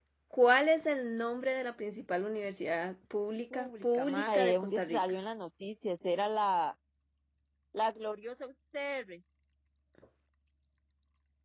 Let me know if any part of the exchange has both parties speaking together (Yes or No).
Yes